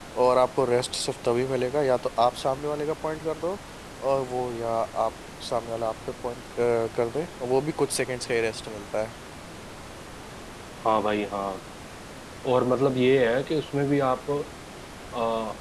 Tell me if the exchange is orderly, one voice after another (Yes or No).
Yes